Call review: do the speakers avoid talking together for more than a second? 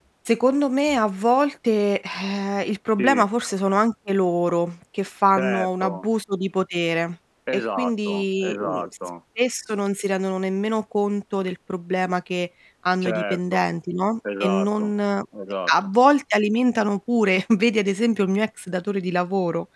No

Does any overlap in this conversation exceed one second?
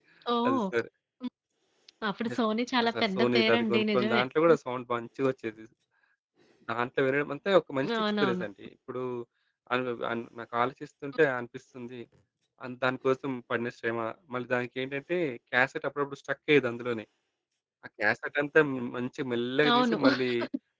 Yes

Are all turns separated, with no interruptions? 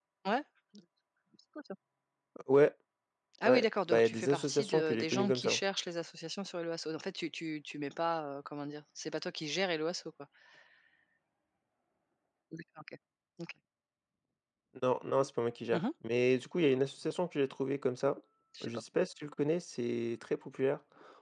No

